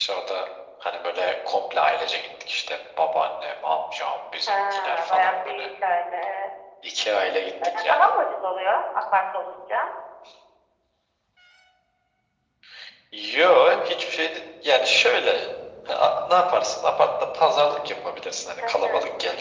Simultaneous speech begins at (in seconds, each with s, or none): 4.5 s